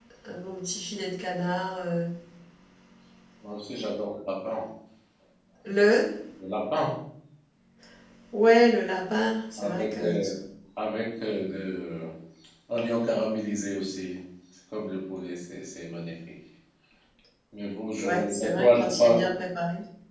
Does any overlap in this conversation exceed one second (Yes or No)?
Yes